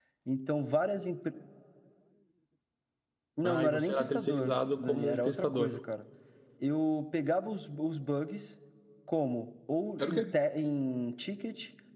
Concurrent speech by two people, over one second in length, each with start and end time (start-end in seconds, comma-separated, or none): 3.4-5.8